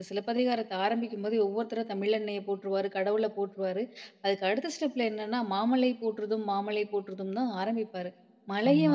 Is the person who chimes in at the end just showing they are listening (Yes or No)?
Yes